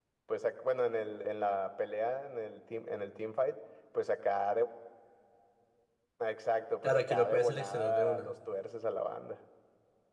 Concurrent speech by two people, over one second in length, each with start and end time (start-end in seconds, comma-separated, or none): 6.8-8.3